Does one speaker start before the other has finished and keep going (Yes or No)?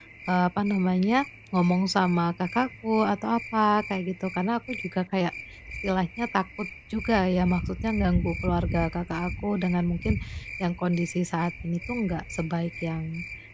No